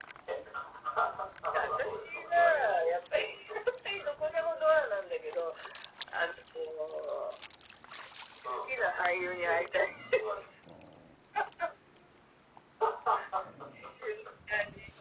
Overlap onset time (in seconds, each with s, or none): 1.6 s